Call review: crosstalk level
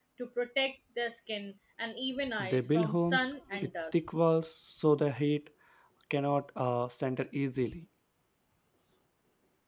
present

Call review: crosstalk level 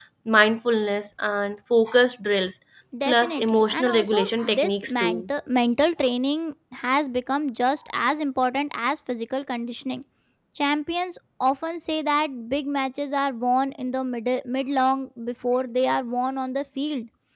present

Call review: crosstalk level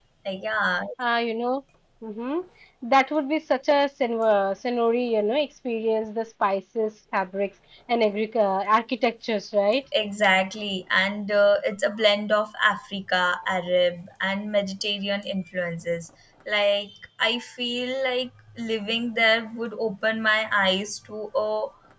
none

